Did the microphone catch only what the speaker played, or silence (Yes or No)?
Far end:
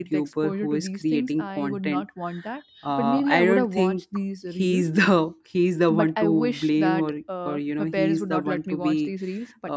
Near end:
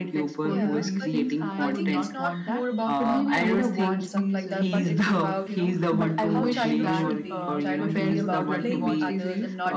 No